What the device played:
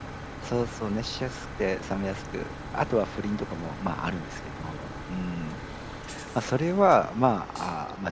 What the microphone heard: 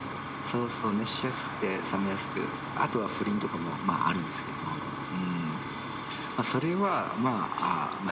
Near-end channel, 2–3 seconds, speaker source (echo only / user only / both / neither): echo only